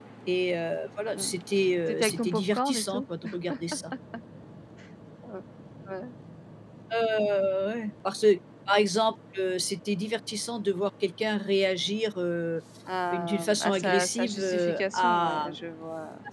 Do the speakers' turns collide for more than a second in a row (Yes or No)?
Yes